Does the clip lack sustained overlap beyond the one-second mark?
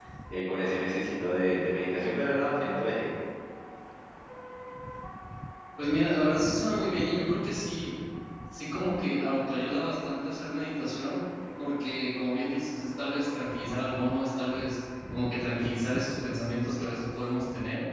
Yes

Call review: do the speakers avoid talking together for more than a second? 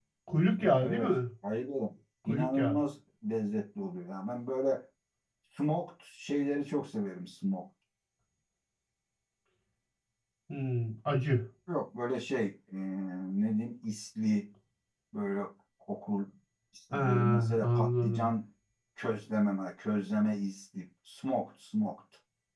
No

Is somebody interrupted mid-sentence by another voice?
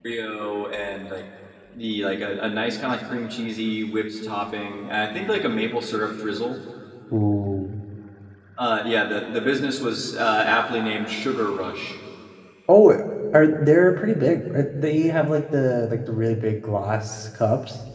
No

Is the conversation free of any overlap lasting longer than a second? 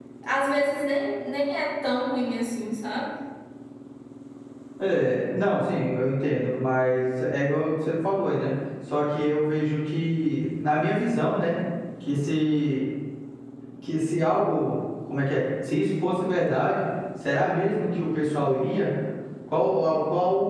Yes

